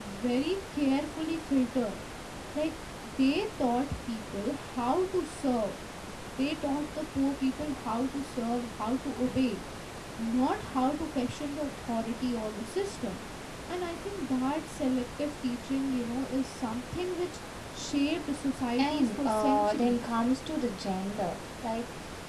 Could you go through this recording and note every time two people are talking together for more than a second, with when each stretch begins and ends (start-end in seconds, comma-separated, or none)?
18.8-20.0